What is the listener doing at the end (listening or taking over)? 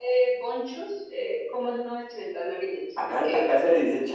taking over